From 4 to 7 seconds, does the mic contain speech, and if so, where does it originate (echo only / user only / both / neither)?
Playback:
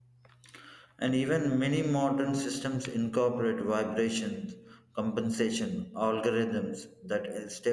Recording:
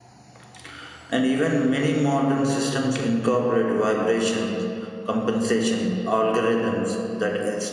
echo only